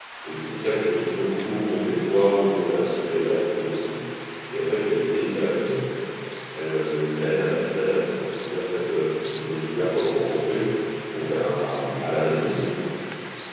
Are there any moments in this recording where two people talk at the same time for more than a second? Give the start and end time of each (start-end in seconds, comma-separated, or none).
none